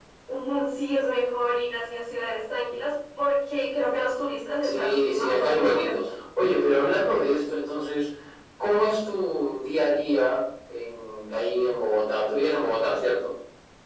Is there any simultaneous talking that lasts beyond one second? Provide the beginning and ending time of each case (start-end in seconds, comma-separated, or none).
4.6-5.9